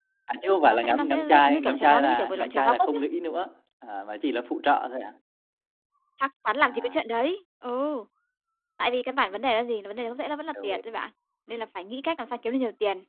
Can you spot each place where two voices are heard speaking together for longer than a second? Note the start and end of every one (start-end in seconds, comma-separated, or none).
0.6-3.0